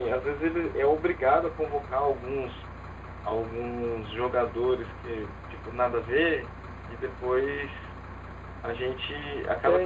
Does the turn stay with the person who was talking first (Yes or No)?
No